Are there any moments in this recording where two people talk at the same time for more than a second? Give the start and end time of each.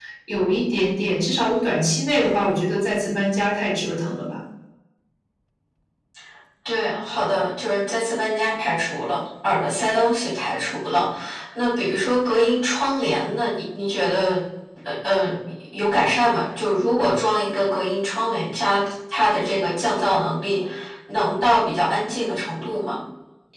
none

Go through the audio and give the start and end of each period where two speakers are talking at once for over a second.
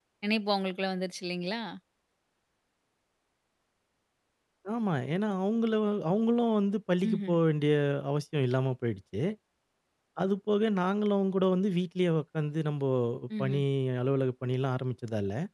none

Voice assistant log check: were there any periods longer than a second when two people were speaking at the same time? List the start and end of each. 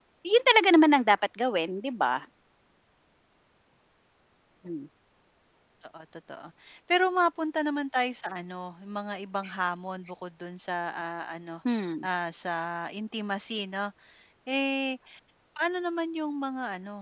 none

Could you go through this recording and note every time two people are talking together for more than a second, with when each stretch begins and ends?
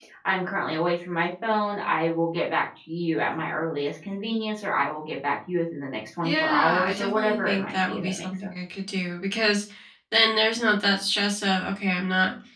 6.2-8.5

